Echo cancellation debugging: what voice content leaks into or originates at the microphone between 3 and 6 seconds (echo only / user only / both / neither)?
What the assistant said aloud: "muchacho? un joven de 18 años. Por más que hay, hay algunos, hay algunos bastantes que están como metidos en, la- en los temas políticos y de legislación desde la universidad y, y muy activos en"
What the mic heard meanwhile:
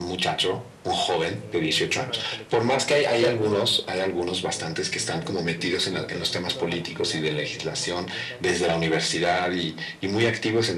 both